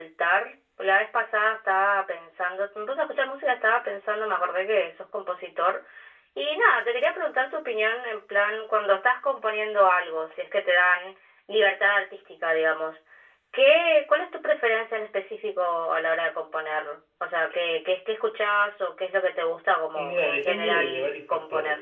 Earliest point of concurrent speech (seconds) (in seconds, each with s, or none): 19.9 s